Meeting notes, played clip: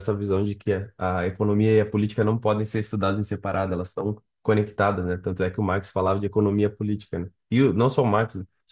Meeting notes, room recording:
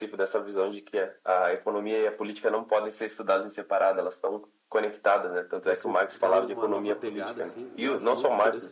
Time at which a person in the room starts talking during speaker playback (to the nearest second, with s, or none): 6 s